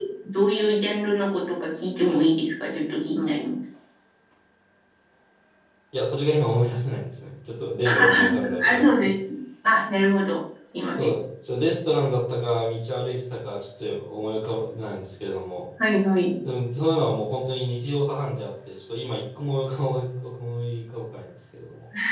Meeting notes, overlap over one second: present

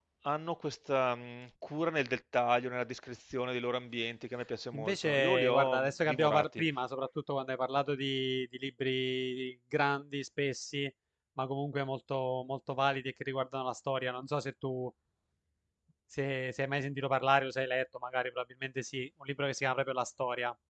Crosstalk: present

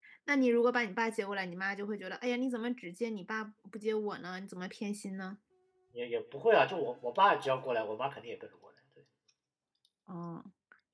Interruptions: none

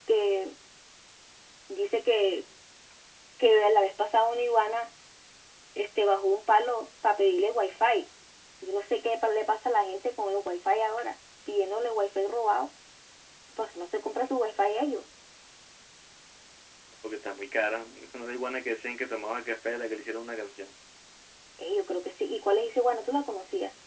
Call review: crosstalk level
none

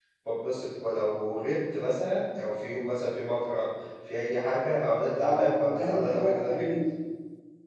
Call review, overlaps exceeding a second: present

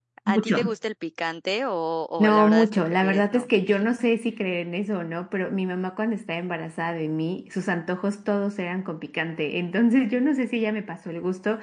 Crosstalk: present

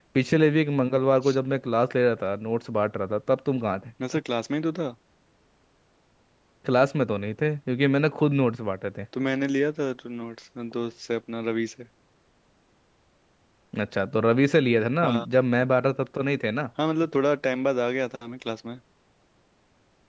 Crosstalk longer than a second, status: none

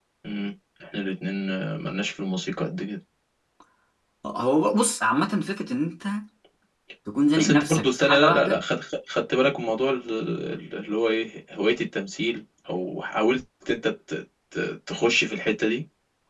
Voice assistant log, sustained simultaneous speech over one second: present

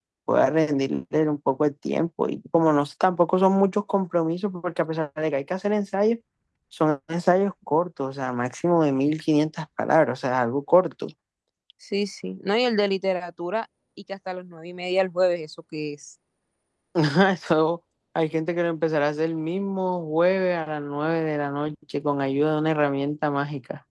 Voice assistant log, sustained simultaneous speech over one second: none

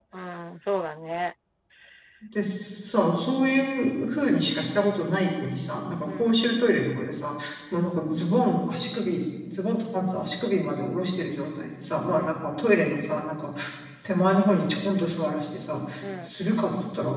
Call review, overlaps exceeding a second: none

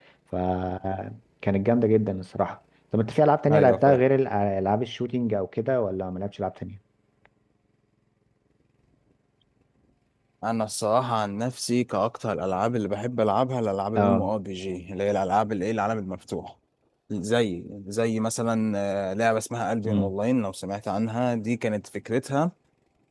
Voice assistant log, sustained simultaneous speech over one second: none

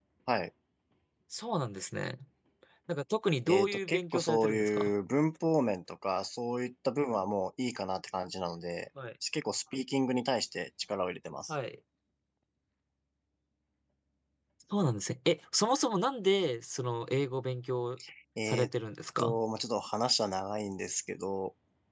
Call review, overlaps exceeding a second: present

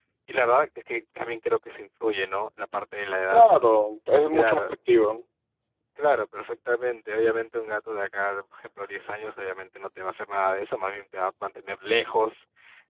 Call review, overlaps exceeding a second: none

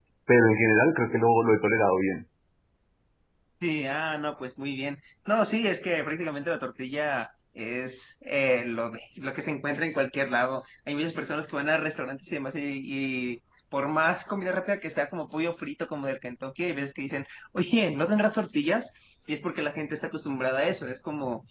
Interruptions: none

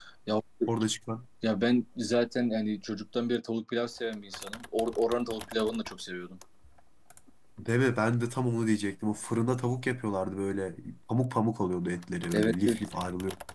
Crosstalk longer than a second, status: none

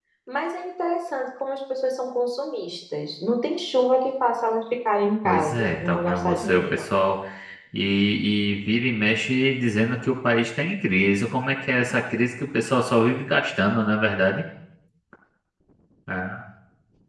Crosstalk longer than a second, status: present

